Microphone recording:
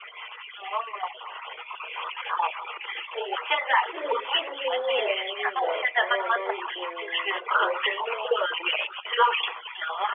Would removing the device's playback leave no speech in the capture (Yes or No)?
No